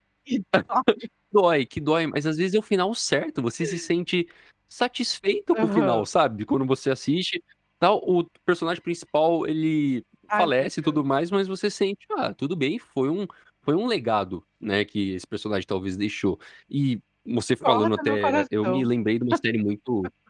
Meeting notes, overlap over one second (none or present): present